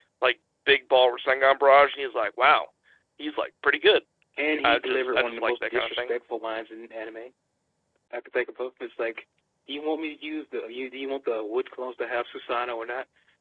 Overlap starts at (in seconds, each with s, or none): 4.6 s